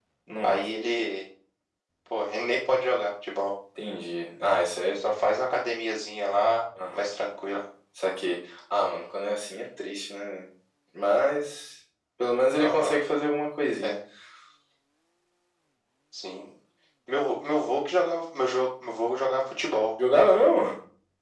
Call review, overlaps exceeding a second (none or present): none